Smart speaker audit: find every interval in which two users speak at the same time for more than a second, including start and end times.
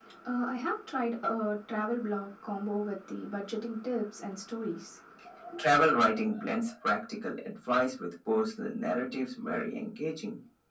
none

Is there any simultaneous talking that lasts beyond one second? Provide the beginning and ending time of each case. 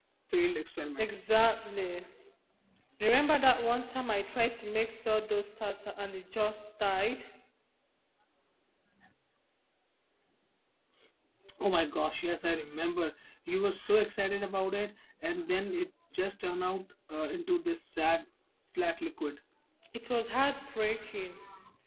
none

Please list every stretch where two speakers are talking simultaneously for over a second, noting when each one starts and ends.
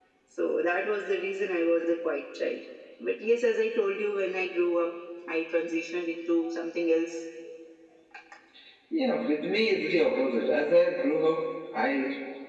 none

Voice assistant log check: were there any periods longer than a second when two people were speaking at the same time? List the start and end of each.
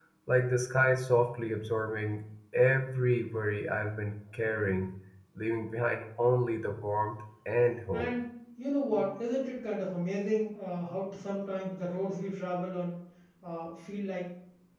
none

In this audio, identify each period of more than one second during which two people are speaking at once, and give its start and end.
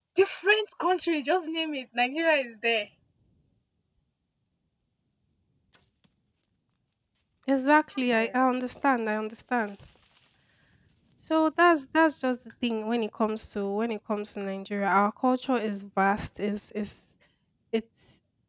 none

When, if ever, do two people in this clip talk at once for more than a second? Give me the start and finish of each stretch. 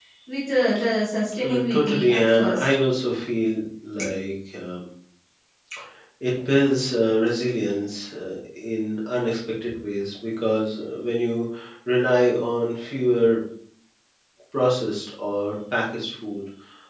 1.4-2.7

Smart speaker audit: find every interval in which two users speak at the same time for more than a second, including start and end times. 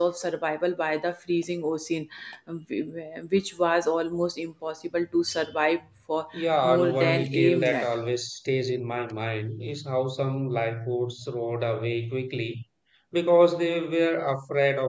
6.3-7.9

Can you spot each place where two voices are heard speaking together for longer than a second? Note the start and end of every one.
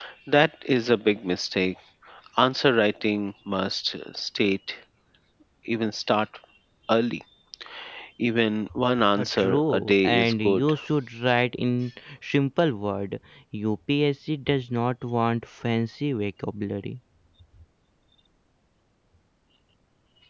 9.2-10.7

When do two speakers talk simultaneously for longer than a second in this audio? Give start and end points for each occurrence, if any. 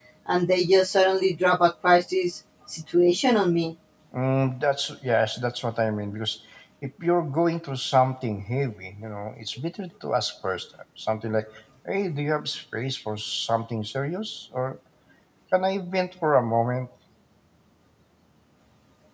none

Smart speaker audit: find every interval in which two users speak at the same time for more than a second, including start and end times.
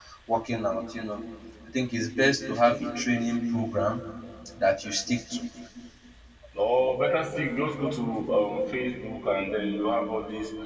none

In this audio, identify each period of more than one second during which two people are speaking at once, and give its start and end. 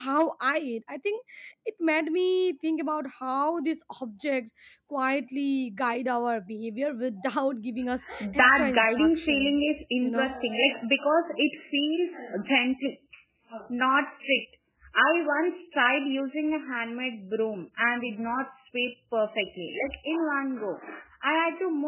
8.2-9.6

